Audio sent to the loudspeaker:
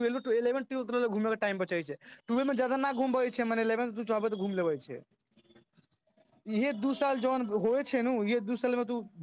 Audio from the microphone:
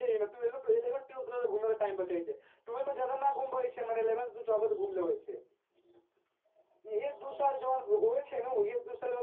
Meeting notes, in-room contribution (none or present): none